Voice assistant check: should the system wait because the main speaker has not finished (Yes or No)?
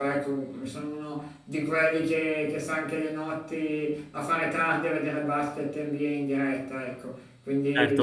No